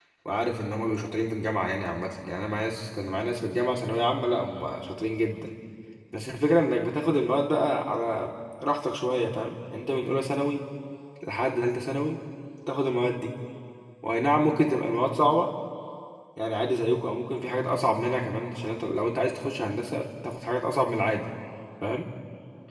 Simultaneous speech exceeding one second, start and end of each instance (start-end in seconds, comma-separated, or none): none